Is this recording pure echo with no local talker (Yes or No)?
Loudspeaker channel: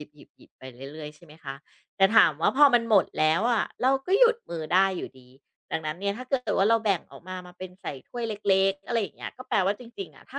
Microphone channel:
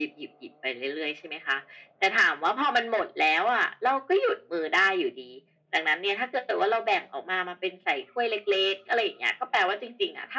Yes